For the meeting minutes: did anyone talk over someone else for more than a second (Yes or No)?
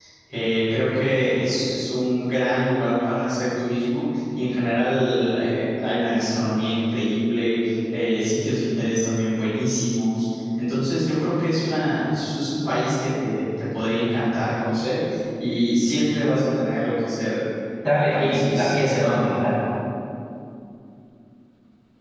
Yes